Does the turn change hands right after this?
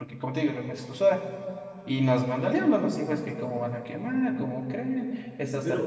Yes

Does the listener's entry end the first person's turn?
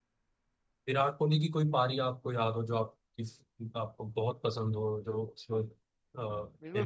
Yes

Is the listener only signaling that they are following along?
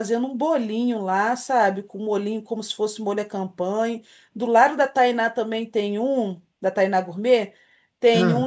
Yes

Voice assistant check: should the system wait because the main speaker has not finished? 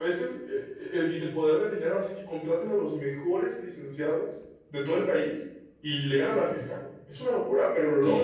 No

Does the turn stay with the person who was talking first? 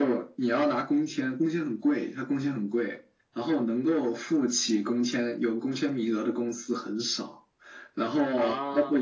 Yes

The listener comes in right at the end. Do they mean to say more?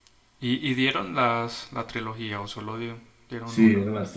Yes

